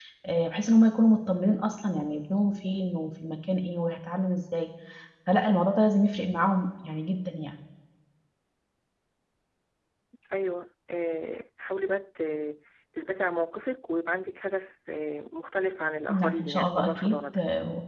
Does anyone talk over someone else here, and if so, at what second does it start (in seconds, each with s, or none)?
16.1 s